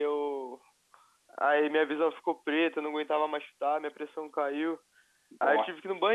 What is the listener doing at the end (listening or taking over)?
listening